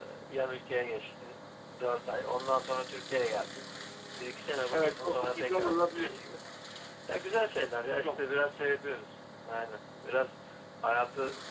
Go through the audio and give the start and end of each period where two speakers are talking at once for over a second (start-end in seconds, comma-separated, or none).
4.7-6.1